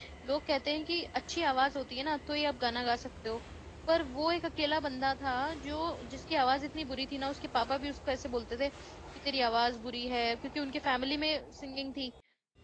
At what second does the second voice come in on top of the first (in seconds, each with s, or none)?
none